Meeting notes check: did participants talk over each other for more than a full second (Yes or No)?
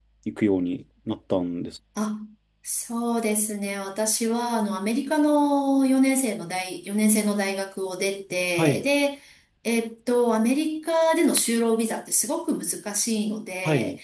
No